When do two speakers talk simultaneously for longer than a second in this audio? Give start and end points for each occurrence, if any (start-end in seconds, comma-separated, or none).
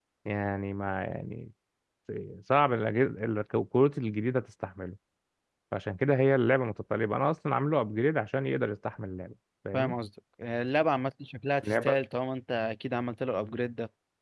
none